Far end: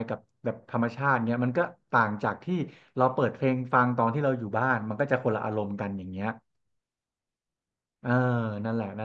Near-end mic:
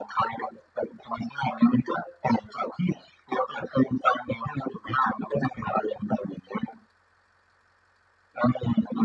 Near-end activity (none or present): none